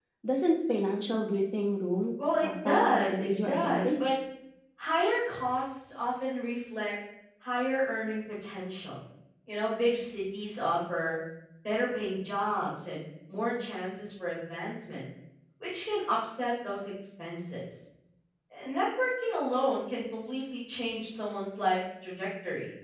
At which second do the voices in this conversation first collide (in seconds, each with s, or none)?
2.2 s